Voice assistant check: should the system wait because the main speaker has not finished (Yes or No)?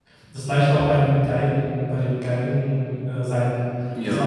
Yes